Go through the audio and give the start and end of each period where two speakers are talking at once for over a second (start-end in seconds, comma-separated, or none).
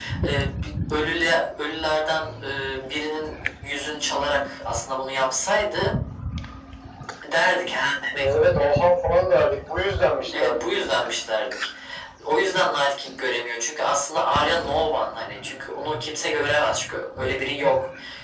none